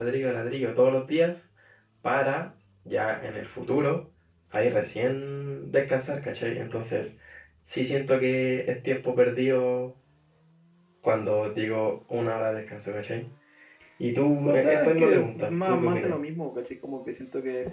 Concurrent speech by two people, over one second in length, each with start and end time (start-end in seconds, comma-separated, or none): 14.4-16.2